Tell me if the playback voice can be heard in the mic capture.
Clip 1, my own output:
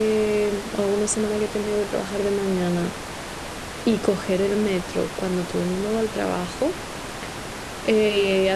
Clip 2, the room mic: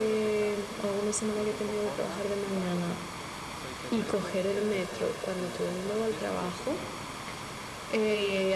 Yes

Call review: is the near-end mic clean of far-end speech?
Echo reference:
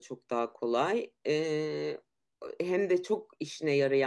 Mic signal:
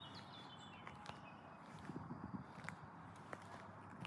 Yes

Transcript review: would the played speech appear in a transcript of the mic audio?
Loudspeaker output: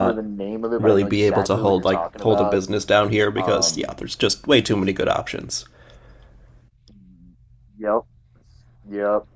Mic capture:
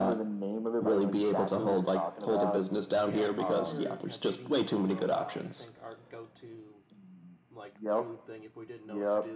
Yes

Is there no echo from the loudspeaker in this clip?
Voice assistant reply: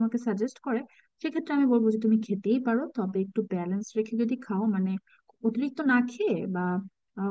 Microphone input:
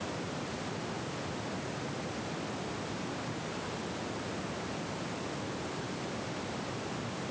Yes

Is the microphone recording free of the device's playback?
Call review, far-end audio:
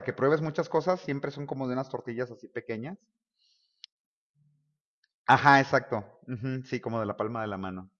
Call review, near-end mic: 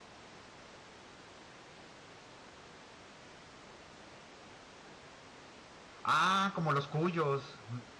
Yes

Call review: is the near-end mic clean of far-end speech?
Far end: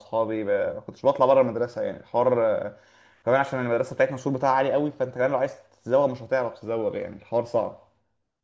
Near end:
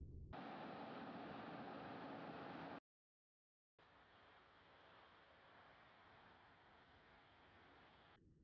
Yes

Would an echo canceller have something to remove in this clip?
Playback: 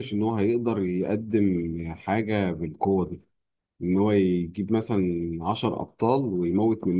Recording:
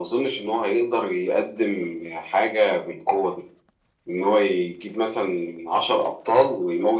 Yes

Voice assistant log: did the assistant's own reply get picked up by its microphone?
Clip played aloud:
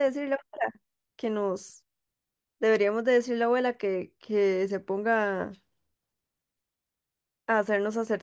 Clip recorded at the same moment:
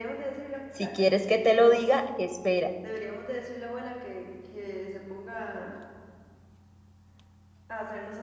Yes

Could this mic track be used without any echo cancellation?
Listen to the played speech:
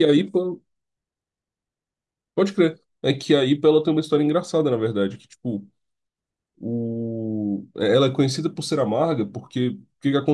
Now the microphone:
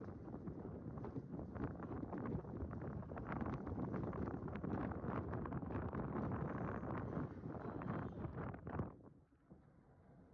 Yes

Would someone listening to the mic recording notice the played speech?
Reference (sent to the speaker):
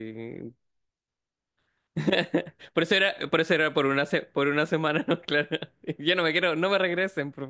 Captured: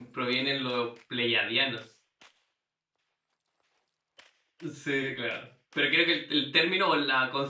No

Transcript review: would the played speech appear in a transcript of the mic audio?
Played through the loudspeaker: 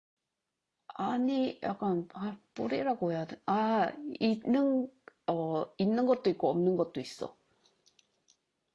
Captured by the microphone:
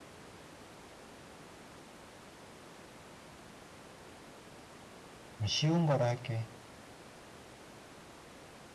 No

